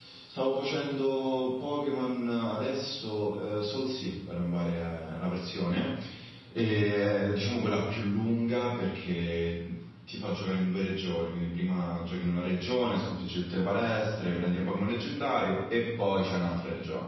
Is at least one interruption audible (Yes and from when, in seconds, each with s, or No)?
No